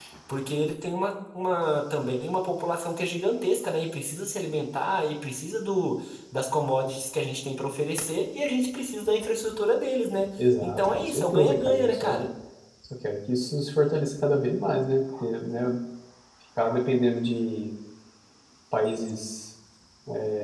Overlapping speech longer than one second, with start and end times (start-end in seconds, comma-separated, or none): 10.6-12.1